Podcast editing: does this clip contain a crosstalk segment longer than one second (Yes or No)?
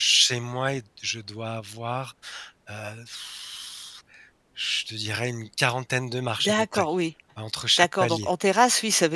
No